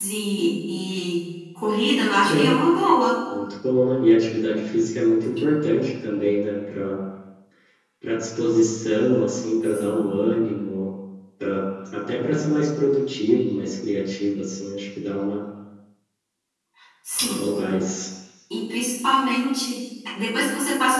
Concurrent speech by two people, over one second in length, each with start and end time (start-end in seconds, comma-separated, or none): none